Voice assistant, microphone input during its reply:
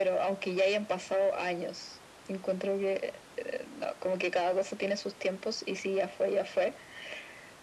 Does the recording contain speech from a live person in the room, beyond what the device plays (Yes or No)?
No